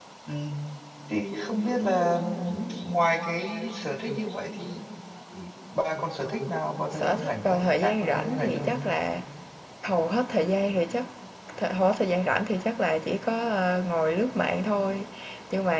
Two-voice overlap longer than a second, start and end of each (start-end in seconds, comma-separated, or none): 6.9-8.7